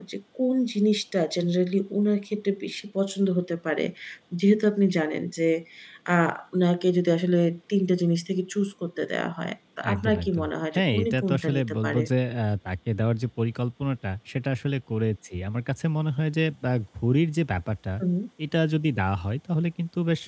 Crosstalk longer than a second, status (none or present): present